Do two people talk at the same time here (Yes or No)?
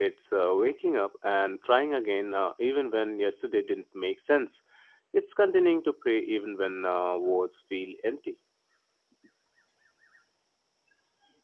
No